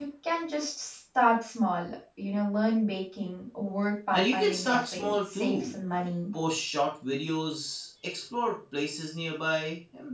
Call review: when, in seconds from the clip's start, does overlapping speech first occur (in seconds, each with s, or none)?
4.1 s